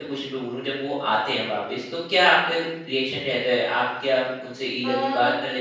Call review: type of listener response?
listening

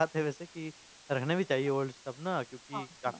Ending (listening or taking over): listening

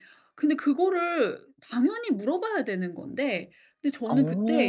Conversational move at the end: listening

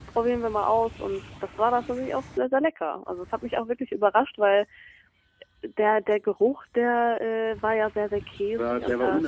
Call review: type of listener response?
taking over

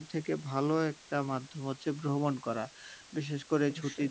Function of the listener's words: listening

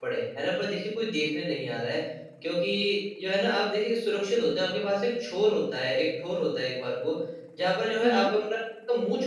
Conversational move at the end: listening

